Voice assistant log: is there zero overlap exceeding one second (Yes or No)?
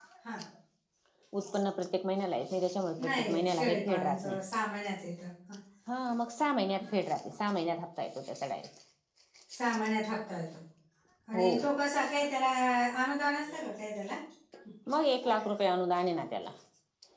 No